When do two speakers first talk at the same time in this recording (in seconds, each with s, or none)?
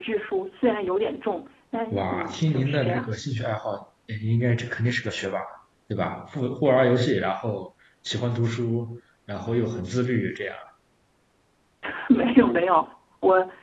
1.9 s